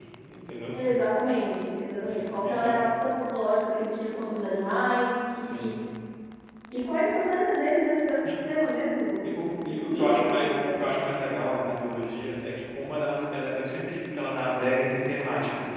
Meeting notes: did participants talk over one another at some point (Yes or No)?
Yes